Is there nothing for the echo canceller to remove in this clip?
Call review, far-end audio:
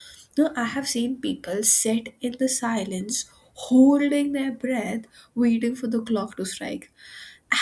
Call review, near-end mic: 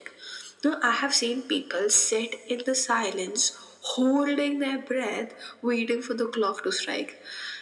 No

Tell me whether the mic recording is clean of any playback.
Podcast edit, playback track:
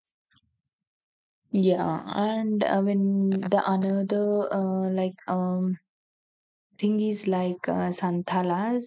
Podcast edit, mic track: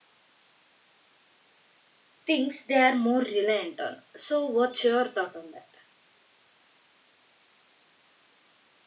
Yes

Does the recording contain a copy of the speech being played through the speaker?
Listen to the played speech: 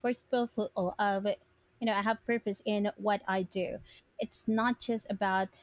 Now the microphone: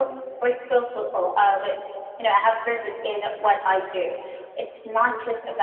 Yes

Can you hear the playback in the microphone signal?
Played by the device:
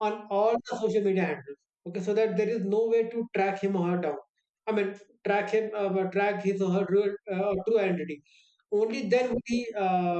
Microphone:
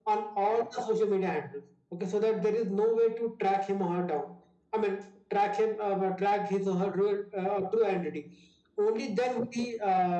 Yes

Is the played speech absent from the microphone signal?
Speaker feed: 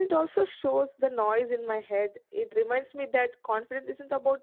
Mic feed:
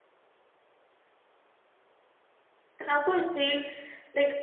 Yes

